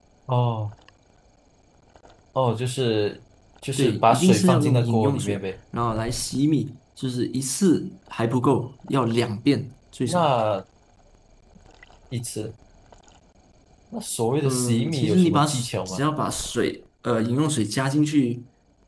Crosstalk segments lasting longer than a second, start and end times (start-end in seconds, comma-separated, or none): 3.8-5.4, 14.4-16.0